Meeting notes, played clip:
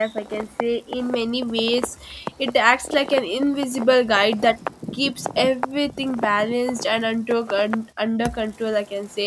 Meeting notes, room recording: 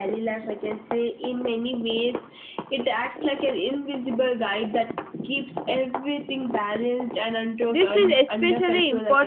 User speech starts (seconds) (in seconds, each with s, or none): 7.7 s